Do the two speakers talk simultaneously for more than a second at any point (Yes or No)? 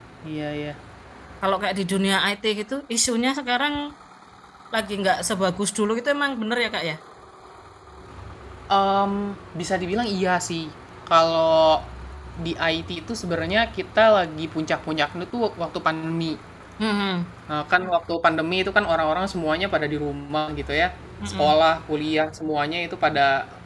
No